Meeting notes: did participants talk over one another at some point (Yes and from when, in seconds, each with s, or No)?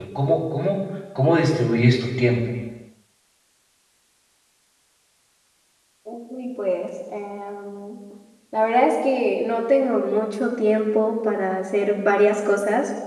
No